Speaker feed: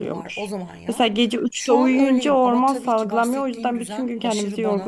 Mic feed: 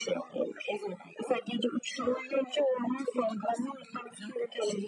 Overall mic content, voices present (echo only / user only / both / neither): echo only